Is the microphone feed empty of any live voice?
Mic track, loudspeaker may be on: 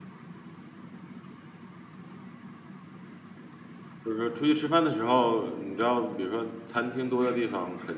No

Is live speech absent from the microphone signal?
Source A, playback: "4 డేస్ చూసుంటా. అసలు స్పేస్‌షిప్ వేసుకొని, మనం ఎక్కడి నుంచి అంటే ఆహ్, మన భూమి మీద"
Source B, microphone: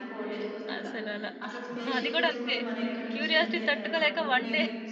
No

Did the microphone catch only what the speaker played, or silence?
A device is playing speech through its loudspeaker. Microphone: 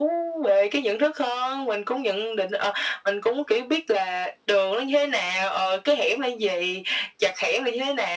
Yes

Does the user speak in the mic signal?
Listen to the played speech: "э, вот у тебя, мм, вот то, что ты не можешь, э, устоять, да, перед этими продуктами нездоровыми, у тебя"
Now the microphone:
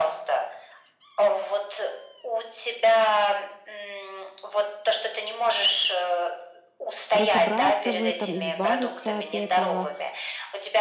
Yes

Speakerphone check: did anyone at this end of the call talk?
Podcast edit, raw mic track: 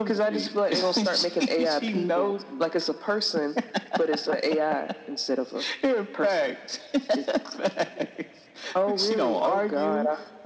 No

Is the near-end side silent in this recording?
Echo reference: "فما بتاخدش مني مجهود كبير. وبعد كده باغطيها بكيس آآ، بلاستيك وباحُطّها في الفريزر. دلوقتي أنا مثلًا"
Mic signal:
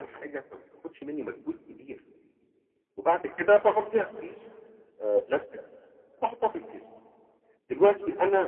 Yes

